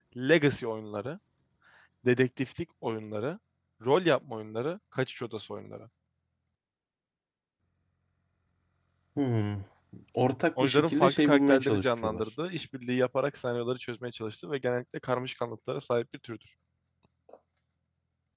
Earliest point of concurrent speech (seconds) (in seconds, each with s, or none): 10.6 s